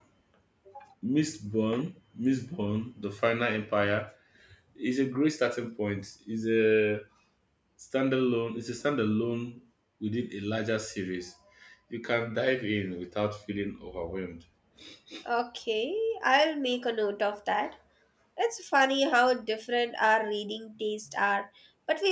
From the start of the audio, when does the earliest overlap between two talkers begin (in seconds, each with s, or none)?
none